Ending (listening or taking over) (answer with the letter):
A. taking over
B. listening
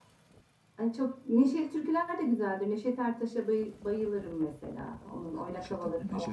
A